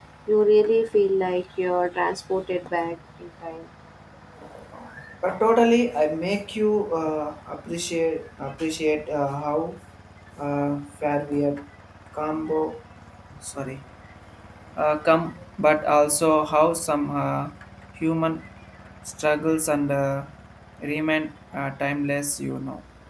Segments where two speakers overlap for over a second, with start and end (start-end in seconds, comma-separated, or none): none